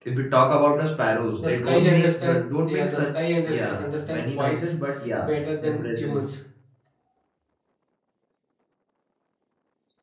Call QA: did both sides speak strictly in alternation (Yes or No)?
No